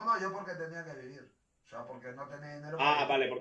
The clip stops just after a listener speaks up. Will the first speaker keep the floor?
No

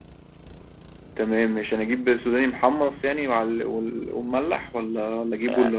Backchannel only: No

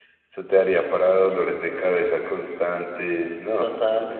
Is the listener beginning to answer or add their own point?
Yes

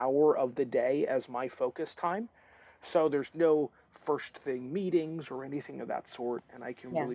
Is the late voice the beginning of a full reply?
No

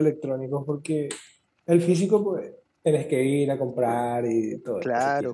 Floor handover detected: Yes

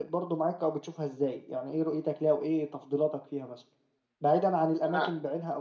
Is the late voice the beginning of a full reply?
No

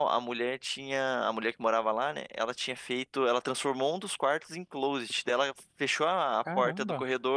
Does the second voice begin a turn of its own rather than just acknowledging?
No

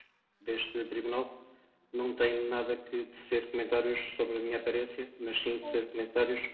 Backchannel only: Yes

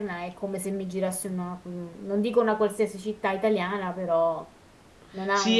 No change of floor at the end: No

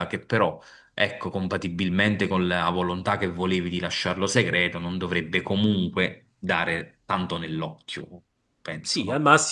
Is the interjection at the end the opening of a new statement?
Yes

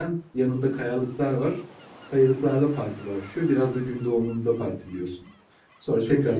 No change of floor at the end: Yes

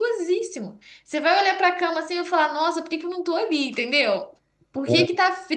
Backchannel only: Yes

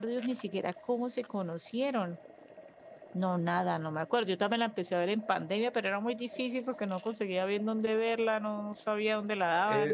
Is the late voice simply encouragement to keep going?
No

